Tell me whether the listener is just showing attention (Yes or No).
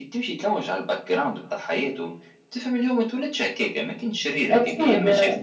Yes